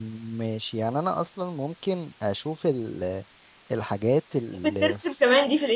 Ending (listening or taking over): taking over